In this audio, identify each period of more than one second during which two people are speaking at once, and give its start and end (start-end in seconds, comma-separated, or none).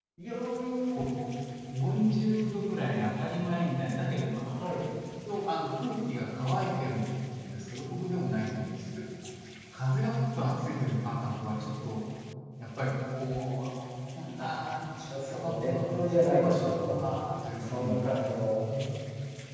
15.2-17.0